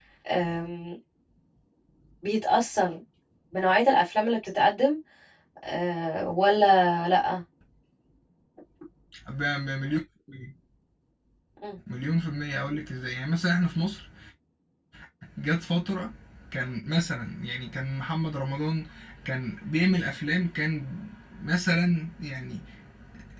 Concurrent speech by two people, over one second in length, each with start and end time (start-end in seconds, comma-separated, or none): none